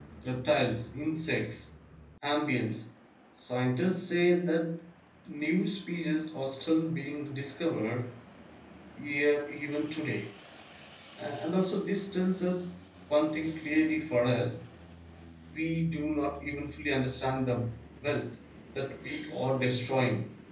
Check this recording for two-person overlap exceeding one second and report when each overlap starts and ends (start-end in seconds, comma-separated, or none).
none